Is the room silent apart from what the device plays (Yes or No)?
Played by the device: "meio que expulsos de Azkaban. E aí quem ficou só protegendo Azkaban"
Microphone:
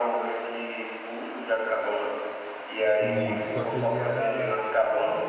No